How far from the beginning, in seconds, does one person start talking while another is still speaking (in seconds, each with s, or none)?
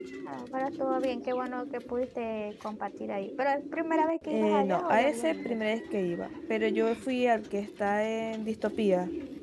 4.3 s